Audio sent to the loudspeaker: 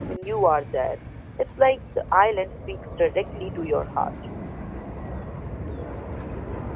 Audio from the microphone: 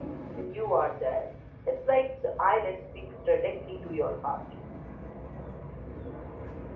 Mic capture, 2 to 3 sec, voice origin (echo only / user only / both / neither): echo only